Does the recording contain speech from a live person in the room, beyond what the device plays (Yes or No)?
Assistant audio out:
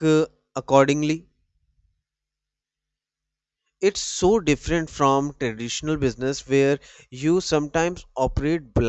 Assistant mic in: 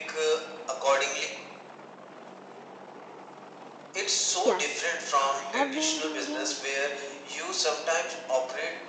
Yes